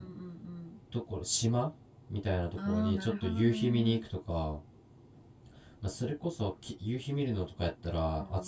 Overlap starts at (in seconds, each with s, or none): 2.6 s